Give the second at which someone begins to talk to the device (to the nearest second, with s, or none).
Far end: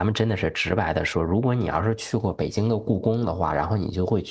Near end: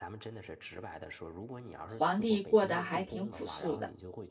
2 s